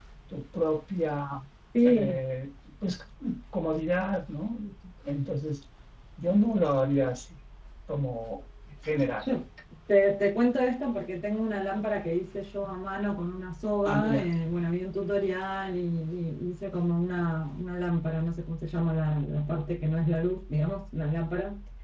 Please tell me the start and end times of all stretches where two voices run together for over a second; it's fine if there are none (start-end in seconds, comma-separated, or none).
none